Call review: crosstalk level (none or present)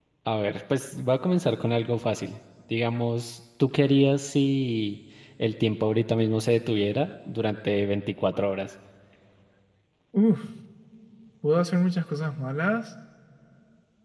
none